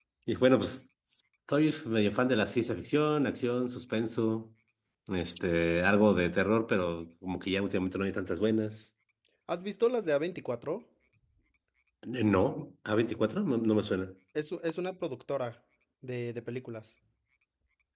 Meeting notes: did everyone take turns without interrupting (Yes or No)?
Yes